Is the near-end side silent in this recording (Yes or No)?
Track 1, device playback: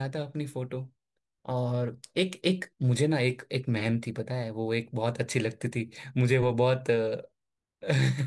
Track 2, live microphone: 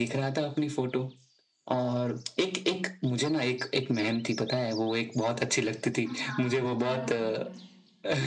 No